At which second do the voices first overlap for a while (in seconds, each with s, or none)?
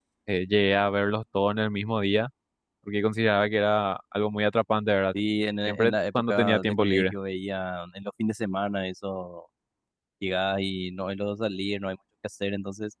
5.7 s